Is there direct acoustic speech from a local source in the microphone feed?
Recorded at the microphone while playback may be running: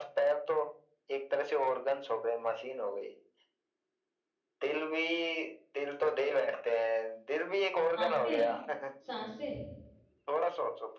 Yes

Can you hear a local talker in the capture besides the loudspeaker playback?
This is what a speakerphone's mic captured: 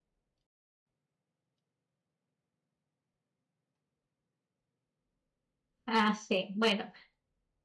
Yes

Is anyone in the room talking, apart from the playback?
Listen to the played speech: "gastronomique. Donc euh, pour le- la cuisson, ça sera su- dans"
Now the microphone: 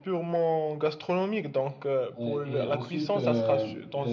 Yes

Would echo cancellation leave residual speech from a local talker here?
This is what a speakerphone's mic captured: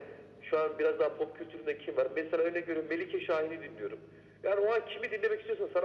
No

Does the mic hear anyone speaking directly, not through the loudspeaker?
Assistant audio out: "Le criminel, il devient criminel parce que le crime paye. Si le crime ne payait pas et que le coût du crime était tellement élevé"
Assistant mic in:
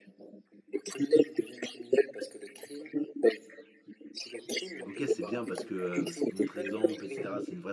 Yes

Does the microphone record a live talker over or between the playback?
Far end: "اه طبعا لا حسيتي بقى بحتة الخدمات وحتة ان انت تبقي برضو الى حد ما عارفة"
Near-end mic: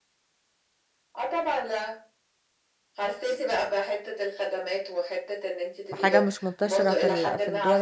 Yes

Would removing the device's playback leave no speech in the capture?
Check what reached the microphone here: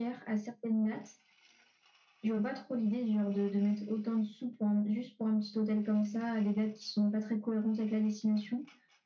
Yes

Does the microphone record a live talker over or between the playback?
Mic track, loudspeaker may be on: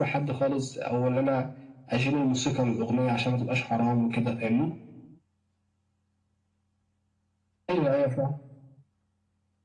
No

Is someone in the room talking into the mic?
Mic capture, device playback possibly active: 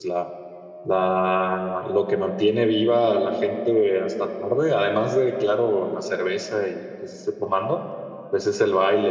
Yes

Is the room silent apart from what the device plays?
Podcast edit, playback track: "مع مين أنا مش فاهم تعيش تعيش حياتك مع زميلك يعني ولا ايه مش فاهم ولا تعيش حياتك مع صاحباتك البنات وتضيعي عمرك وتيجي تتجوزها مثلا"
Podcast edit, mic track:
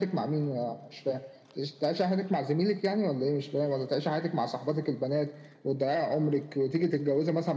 Yes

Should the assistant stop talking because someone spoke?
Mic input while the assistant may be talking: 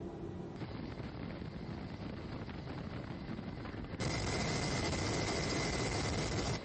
No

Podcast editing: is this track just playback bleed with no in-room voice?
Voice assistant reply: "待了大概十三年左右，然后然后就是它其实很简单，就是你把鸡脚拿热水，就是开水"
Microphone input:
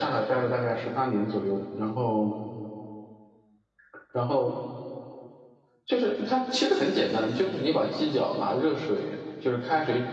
Yes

